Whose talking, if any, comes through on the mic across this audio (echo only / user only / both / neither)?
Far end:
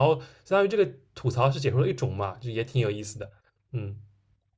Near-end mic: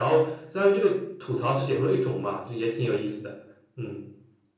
echo only